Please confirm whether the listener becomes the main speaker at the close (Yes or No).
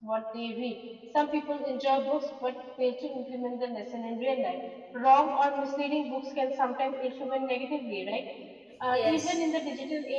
No